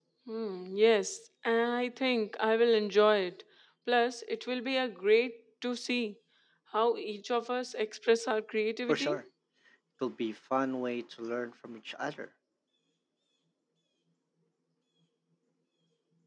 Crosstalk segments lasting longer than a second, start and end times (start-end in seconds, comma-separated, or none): none